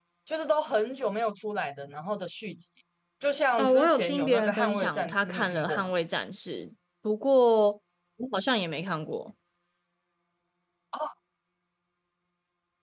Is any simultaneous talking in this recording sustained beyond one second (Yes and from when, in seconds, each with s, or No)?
Yes, from 3.6 s